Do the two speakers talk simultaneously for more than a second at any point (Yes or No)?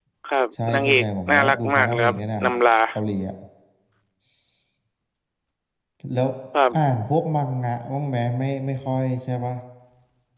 Yes